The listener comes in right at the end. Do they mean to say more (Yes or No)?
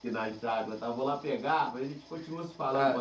Yes